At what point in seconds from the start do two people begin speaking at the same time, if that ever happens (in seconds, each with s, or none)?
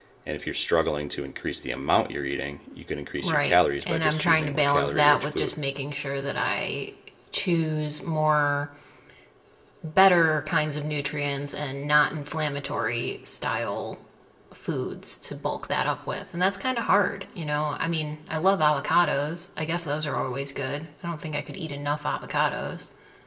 3.2 s